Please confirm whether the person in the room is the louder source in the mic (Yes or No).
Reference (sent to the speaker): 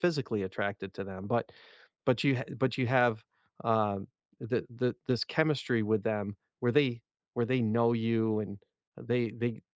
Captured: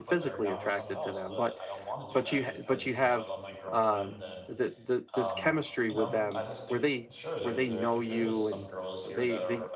No